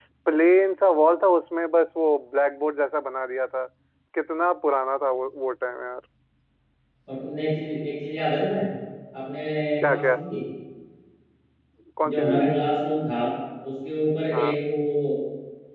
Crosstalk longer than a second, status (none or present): none